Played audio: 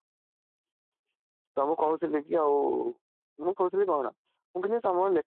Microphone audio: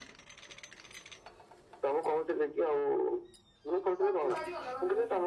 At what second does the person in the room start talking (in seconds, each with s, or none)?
4.0 s